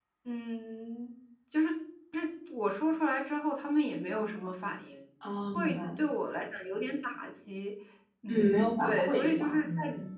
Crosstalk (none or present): present